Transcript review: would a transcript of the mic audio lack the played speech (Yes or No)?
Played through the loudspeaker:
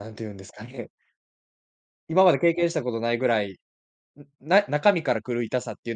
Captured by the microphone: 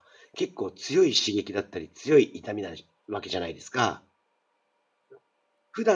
Yes